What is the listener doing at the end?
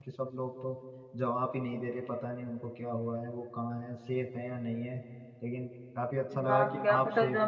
taking over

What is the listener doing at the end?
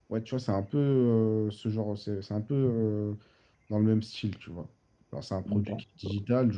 listening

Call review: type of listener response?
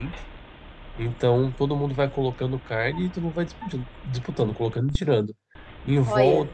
listening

